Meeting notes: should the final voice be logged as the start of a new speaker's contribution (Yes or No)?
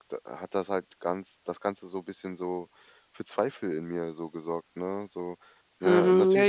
Yes